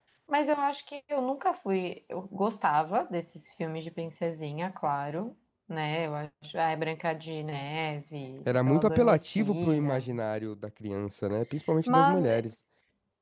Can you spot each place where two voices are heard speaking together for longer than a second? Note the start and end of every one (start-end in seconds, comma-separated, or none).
8.5-10.1